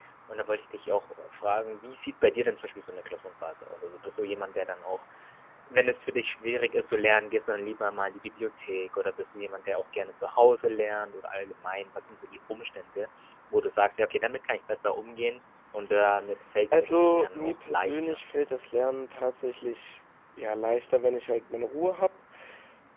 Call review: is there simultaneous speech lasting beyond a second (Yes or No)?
Yes